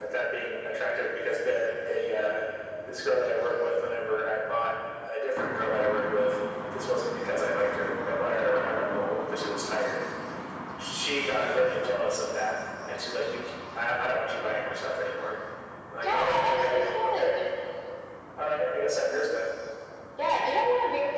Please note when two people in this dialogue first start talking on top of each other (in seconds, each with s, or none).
16.0 s